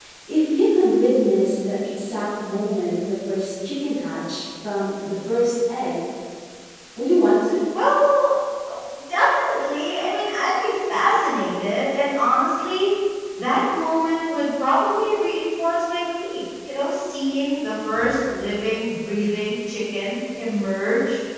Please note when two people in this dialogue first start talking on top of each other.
none

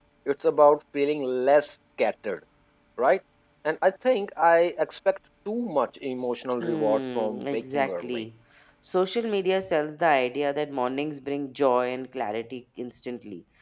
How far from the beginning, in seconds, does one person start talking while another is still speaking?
7 s

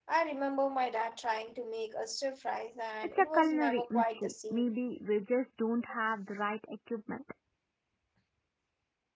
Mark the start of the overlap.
3 s

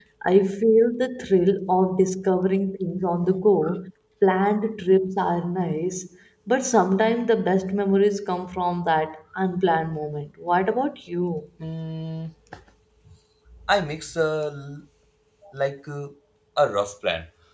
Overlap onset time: none

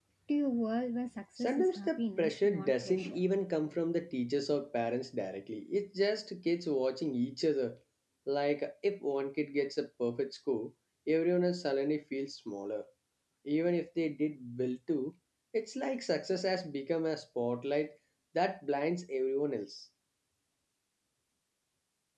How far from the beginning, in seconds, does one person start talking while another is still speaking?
1 s

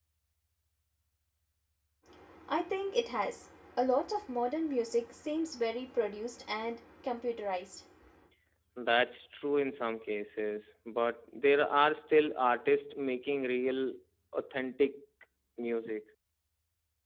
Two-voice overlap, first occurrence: none

